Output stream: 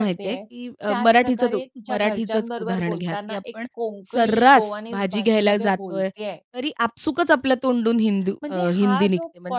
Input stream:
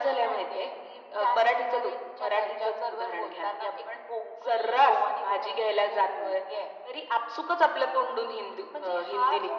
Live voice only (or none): none